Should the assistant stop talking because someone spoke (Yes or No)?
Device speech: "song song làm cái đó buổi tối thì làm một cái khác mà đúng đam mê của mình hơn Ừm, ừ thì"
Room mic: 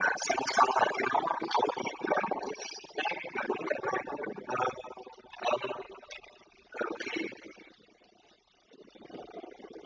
No